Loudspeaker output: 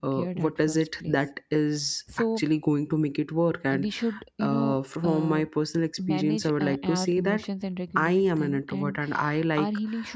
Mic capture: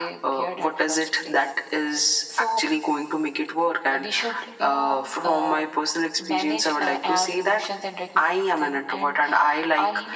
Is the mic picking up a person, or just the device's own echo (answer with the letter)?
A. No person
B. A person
A